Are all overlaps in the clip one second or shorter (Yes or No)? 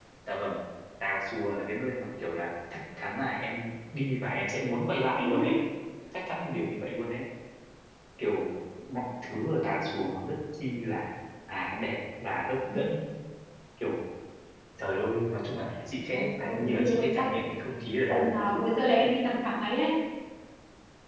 No